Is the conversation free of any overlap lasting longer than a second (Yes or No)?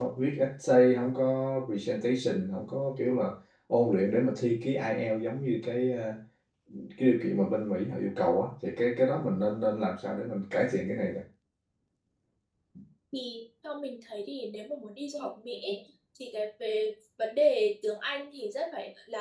Yes